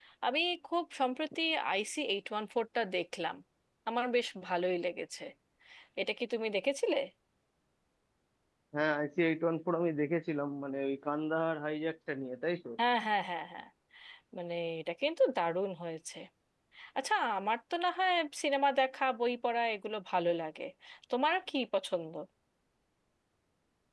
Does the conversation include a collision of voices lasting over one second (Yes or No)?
No